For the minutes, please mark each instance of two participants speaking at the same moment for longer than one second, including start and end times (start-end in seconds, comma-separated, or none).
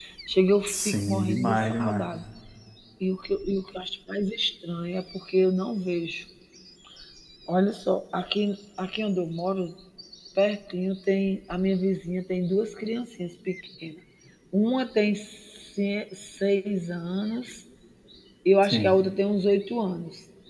0.7-2.0